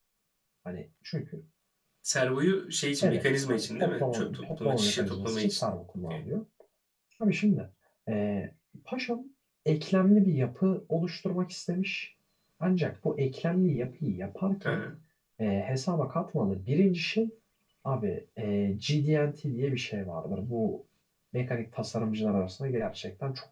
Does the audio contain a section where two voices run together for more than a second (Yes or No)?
Yes